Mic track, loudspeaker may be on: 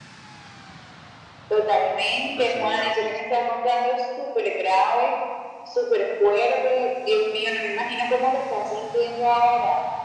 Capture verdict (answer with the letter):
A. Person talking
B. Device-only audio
A